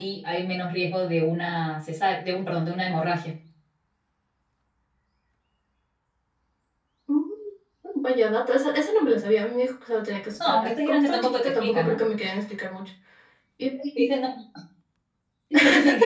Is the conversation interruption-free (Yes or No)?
No